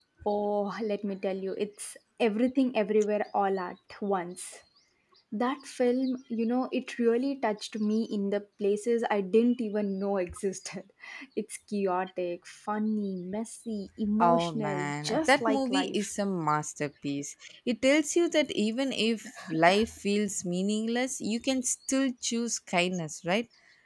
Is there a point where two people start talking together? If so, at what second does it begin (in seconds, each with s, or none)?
14.2 s